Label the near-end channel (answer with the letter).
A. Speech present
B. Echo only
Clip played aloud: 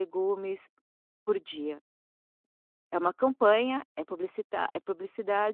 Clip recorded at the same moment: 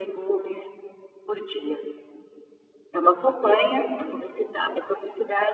B